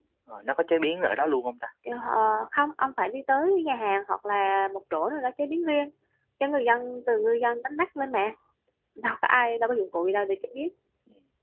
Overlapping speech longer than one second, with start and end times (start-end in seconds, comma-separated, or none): none